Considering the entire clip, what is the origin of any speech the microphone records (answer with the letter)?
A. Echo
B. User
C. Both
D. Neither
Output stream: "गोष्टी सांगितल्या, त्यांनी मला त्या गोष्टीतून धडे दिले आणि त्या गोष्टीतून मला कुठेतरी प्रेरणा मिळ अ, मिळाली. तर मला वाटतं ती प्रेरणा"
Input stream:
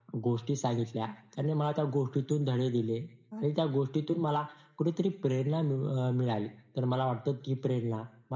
A